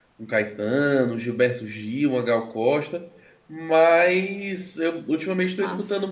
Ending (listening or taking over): listening